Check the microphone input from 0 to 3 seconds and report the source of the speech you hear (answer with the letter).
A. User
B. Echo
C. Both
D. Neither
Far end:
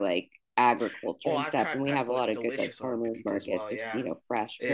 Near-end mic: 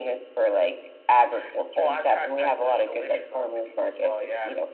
B